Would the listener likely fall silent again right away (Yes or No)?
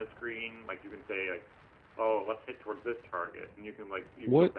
No